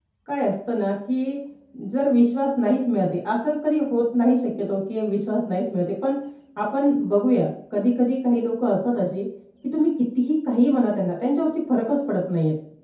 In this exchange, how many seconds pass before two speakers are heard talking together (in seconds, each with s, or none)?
none